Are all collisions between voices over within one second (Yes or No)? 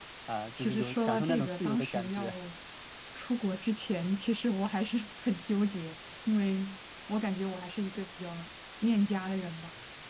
No